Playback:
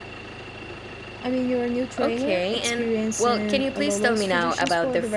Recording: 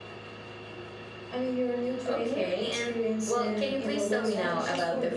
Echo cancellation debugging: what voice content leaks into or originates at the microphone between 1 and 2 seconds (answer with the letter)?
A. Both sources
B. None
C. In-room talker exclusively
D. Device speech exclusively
D